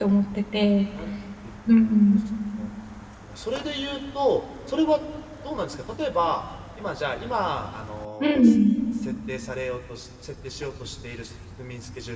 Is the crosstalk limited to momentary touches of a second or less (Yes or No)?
Yes